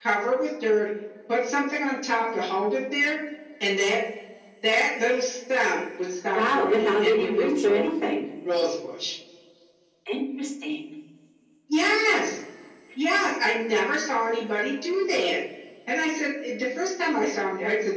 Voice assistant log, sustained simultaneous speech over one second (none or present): present